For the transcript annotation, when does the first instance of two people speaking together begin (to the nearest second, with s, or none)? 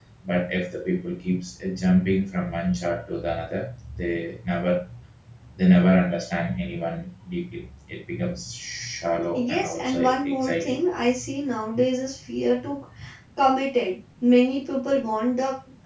9 s